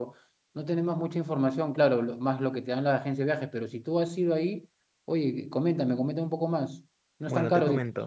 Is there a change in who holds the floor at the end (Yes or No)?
Yes